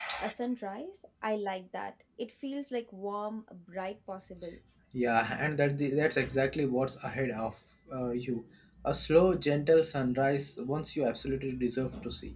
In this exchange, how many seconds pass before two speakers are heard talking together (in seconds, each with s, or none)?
none